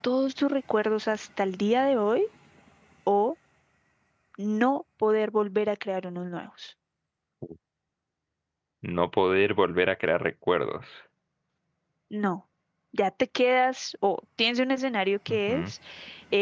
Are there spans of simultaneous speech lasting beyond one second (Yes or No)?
No